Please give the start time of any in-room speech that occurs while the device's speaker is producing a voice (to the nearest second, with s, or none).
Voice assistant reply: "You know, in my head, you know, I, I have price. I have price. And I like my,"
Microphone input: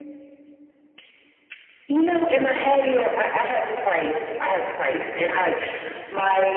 none